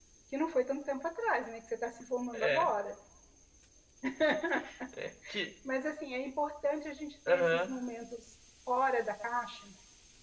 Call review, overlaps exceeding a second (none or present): none